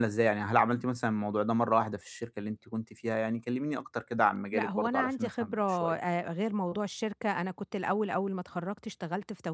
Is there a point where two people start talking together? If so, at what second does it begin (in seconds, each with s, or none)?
4.5 s